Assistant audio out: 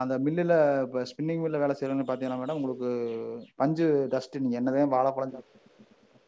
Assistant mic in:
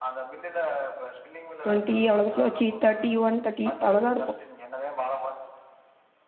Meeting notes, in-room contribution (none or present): present